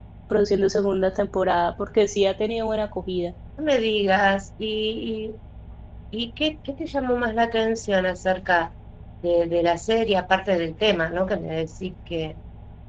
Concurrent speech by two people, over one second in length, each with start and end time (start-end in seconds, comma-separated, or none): none